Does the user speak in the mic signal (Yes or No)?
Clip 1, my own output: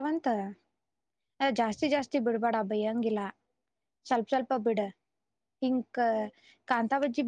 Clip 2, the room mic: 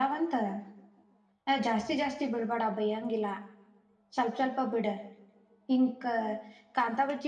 No